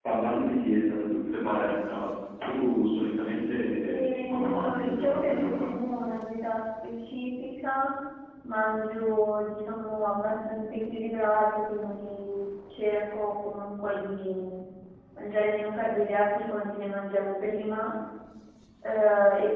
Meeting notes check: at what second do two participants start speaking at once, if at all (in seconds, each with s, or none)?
3.9 s